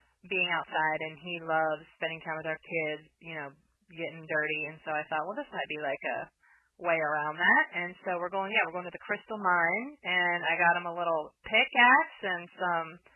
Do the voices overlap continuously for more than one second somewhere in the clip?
No

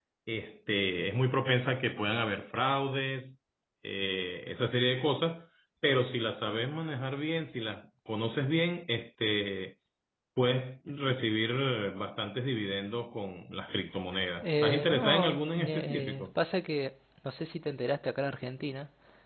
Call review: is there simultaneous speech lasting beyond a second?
Yes, from 14.4 s

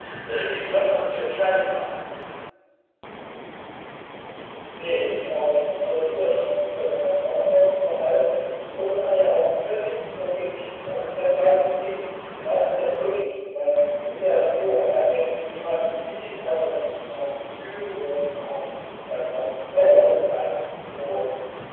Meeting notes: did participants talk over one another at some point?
No

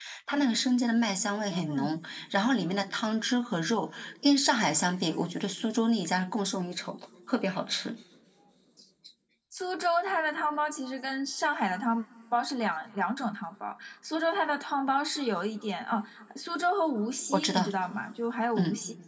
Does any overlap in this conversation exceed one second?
No

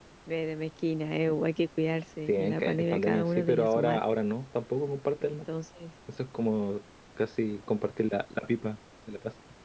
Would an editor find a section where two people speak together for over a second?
Yes, from 2.3 s

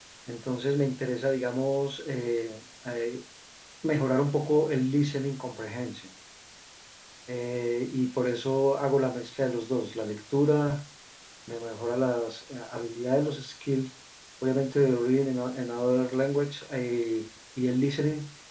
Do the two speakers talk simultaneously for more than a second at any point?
No

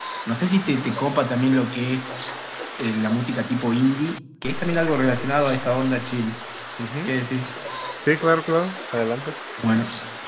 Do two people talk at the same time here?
No

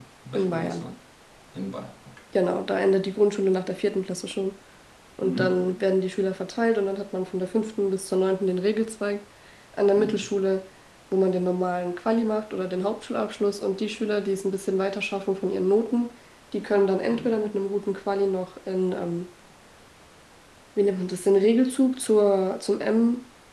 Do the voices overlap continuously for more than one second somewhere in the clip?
No

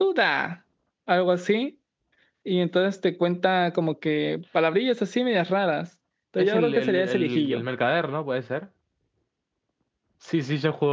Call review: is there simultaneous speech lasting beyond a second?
Yes, from 6.4 s

